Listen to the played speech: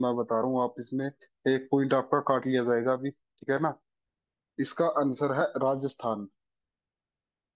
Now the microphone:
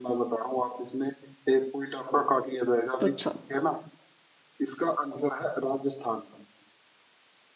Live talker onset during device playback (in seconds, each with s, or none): 3.0 s